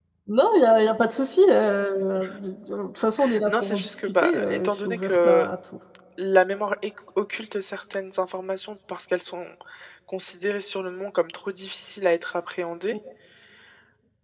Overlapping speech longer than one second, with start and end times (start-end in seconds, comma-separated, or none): 3.4-5.5